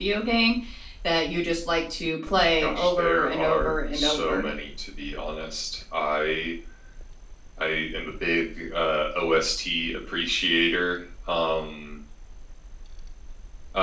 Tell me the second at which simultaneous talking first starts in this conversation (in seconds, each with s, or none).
2.6 s